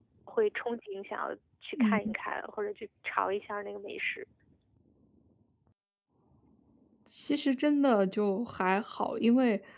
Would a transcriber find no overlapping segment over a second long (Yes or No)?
Yes